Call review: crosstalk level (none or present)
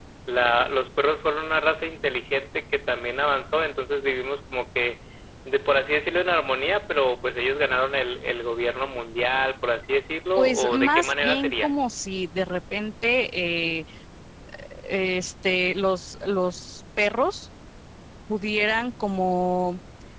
present